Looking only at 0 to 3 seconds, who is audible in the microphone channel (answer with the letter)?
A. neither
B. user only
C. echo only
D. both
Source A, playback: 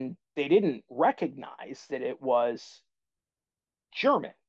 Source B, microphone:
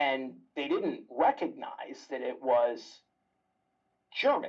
C